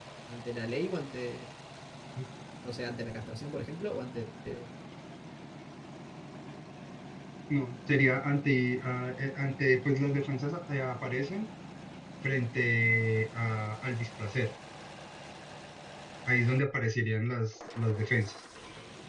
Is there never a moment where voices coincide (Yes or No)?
Yes